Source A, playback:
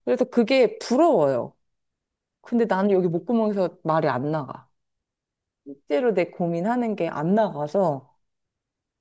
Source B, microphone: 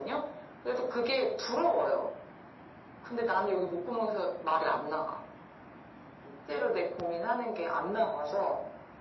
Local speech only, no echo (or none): none